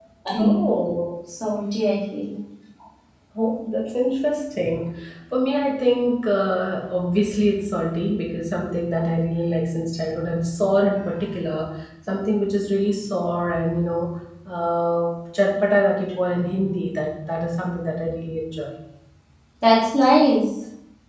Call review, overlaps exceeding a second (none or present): none